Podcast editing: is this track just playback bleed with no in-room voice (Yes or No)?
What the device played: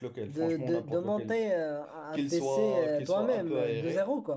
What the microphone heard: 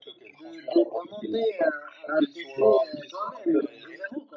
Yes